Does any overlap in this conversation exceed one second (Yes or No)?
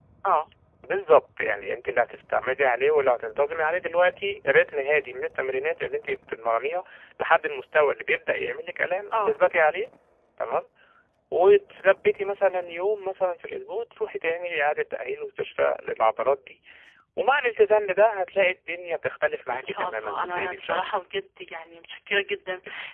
Yes